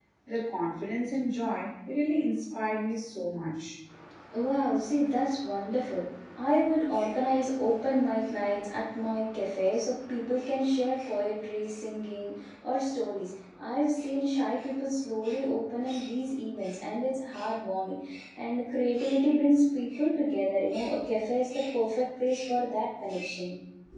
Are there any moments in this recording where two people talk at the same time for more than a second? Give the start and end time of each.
none

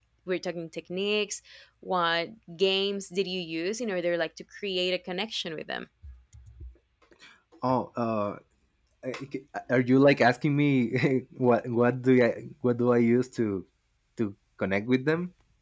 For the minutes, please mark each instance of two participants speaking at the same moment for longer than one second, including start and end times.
none

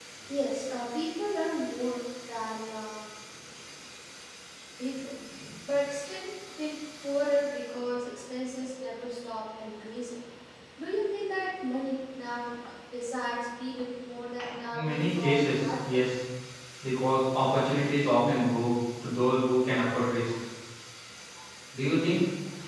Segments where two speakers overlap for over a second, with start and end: 14.7-16.0

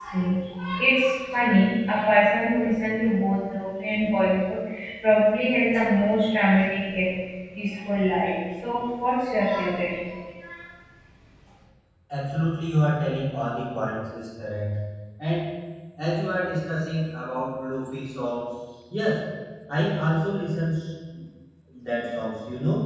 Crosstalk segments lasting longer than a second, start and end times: none

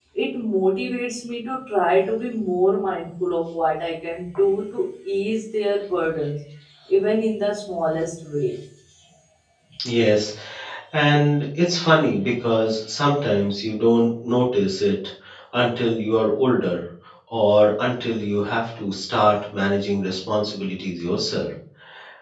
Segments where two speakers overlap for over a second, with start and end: none

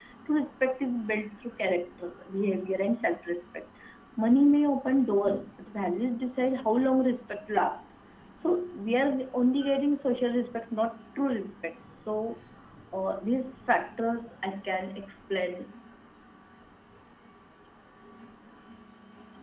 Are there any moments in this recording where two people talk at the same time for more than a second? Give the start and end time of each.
none

